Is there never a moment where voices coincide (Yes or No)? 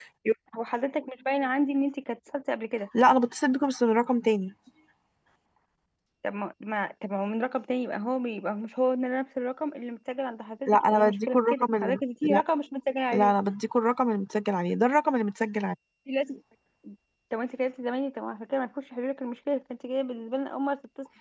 No